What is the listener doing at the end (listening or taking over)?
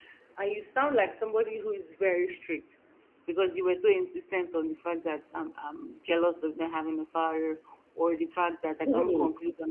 listening